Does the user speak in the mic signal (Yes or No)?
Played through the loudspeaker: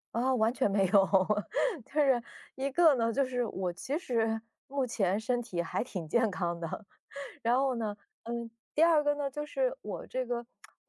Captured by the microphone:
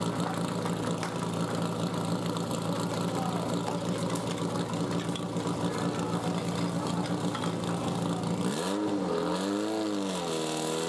No